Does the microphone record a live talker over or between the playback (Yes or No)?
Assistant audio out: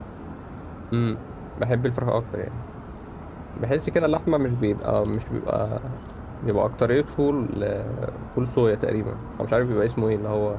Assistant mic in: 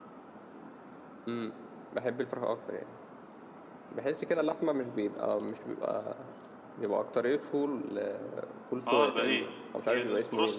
Yes